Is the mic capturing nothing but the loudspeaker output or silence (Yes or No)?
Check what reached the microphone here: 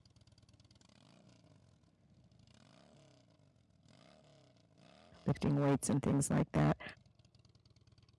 No